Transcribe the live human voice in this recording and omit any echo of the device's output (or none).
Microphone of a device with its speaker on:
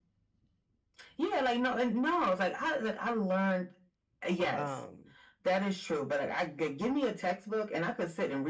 Um,